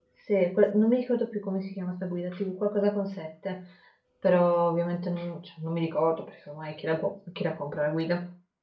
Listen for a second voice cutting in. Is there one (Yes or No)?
No